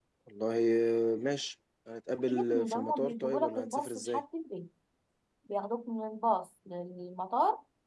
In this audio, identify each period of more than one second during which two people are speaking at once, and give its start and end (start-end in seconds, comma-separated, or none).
2.3-4.2